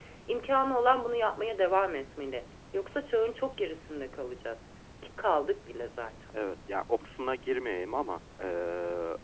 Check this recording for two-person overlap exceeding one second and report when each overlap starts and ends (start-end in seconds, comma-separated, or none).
none